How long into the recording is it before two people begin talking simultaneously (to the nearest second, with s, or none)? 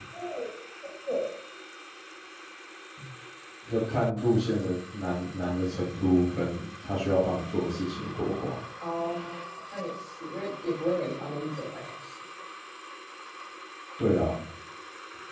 none